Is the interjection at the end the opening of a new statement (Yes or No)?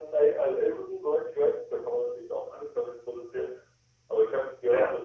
No